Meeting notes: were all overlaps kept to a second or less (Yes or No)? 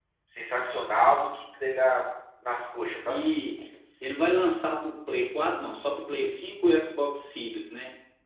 Yes